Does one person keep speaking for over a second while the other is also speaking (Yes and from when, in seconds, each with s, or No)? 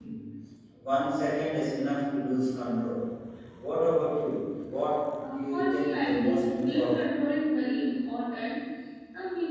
Yes, from 5.2 s